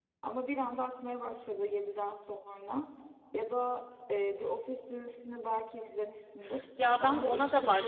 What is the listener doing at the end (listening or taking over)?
taking over